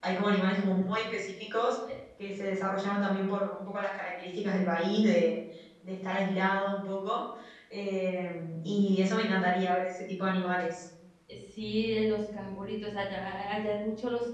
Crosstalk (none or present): none